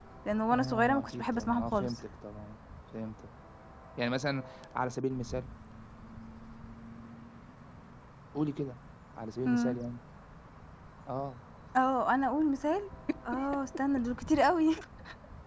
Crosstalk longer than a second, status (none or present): present